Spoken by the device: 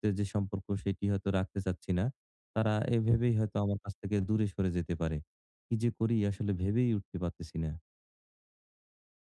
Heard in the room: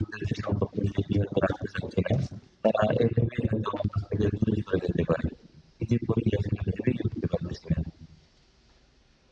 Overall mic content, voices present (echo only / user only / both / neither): echo only